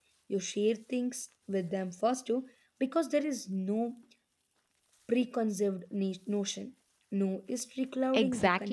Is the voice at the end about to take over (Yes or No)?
Yes